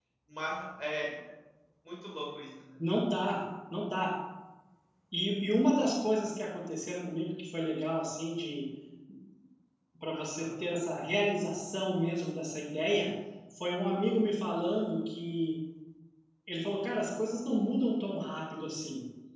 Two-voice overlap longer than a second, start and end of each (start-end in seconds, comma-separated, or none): none